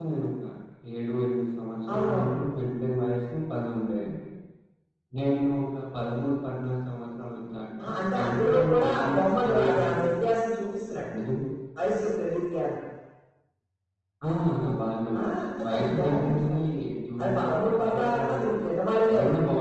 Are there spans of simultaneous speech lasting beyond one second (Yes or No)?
Yes